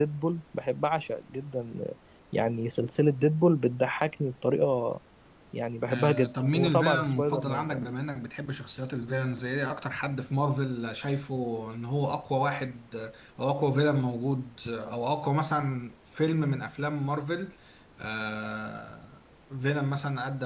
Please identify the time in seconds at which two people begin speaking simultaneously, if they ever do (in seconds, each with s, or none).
5.9 s